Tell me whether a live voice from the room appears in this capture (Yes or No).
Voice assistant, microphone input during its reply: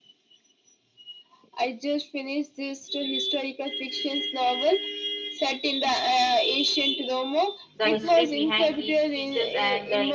Yes